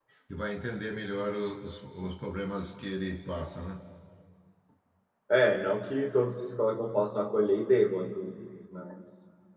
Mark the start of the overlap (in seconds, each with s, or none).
none